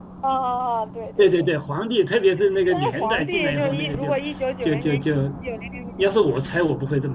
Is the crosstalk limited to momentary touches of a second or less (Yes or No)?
No